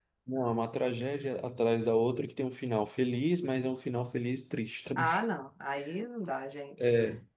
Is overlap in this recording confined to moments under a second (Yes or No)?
Yes